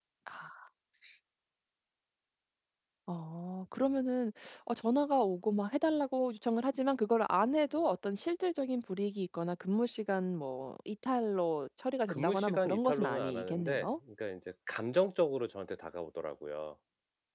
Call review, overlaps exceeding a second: present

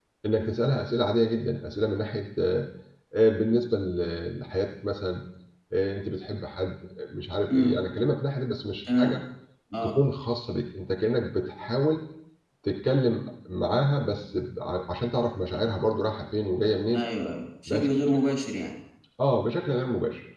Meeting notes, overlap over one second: none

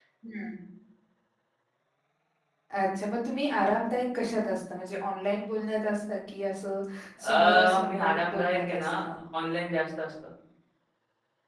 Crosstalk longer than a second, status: present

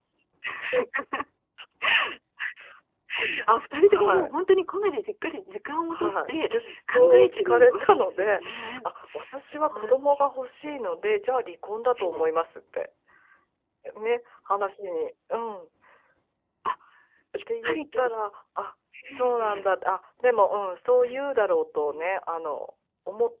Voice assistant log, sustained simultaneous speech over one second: present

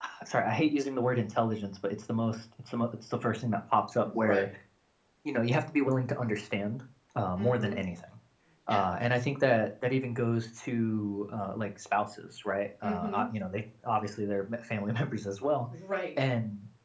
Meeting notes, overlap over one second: none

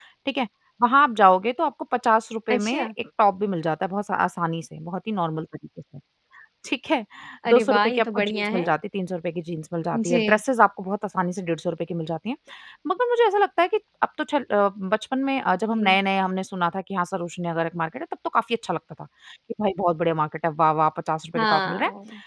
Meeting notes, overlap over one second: present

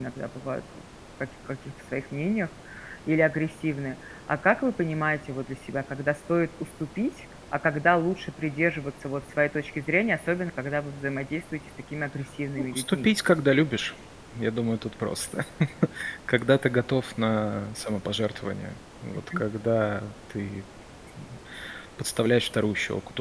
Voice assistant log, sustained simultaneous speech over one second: none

